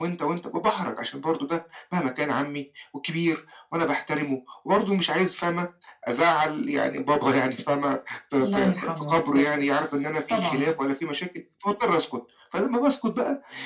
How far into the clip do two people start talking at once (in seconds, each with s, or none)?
8.4 s